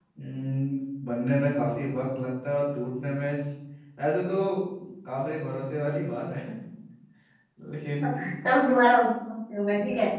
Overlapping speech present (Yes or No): No